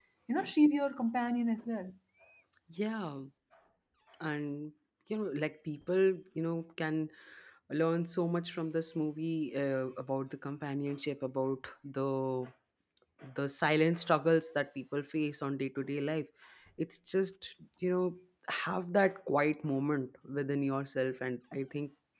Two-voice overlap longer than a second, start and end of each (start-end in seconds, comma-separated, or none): none